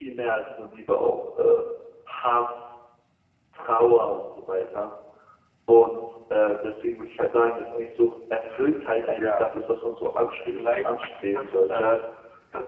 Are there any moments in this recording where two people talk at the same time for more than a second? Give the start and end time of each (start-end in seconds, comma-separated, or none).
10.5-11.9